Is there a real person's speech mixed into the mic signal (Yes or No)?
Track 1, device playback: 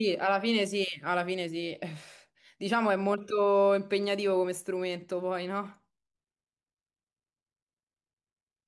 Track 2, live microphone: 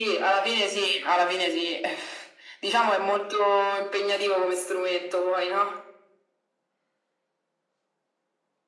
No